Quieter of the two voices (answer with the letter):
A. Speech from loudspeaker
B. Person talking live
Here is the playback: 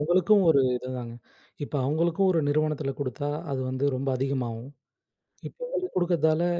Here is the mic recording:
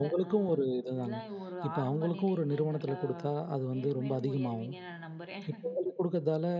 B